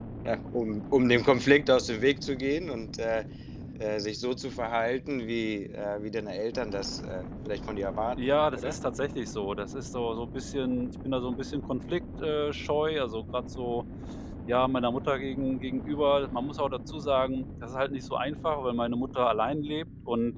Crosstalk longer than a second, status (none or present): none